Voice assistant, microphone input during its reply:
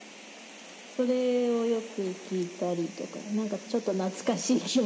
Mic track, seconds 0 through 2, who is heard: echo only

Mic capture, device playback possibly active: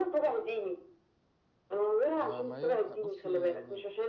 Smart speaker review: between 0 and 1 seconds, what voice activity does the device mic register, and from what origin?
echo only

